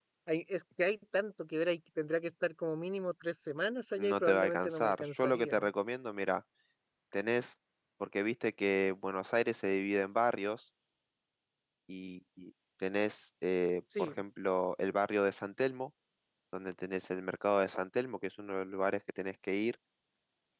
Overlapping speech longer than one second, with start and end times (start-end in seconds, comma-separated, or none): 4.0-5.6